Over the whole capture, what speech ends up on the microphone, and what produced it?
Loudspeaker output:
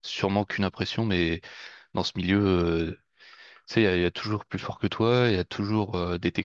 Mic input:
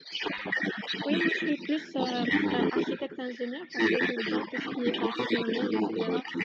both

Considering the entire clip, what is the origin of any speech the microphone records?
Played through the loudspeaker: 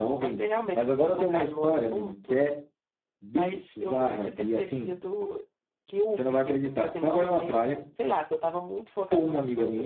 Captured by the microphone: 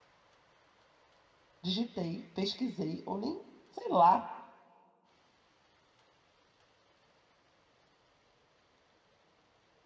user only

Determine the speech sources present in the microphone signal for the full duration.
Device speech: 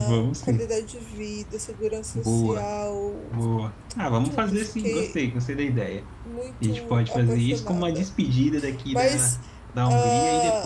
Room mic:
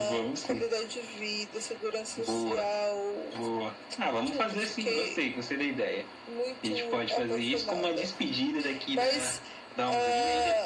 echo only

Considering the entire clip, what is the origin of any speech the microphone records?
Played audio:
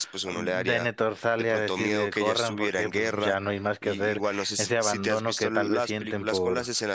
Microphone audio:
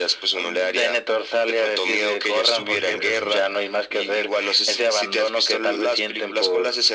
both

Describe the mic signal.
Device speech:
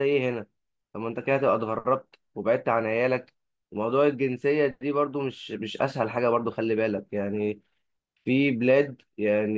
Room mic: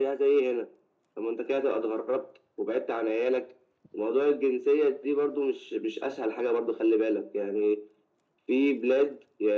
echo only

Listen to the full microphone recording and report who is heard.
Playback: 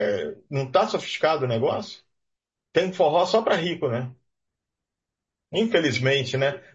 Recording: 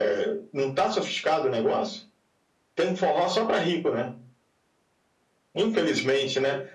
echo only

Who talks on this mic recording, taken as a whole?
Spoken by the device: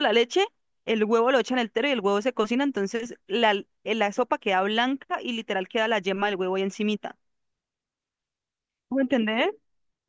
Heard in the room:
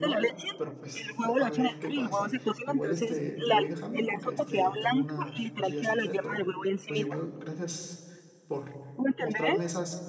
both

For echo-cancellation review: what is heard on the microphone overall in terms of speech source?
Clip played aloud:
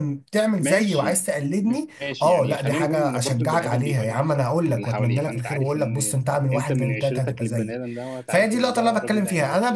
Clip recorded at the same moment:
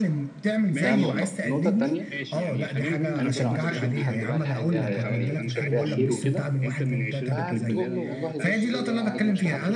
both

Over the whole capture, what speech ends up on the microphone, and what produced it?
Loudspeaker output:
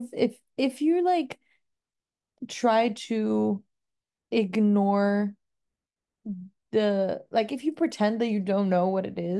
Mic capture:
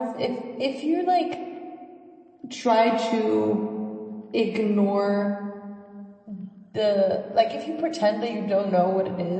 echo only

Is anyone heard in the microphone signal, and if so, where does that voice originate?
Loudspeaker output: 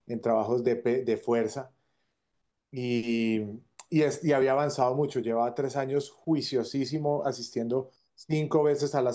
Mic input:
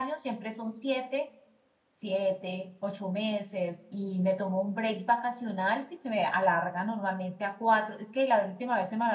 user only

